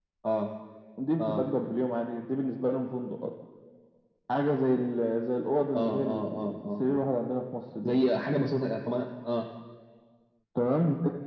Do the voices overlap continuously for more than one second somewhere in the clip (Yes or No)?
Yes